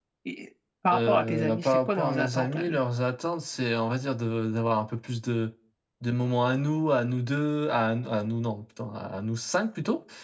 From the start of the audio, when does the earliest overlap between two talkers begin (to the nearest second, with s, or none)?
1 s